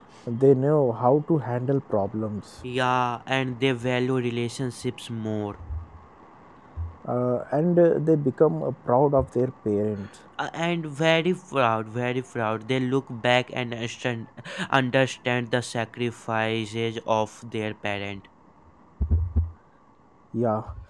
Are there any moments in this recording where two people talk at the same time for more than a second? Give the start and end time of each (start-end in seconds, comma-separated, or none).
none